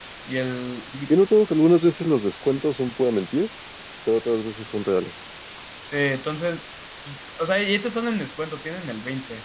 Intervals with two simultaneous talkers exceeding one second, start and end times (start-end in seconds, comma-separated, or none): none